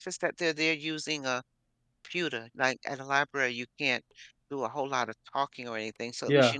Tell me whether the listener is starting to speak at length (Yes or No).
No